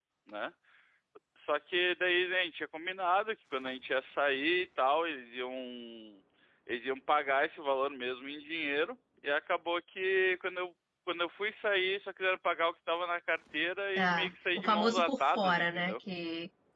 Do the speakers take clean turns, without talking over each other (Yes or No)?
No